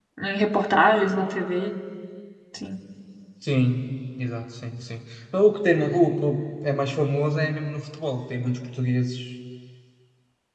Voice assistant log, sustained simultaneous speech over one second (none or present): none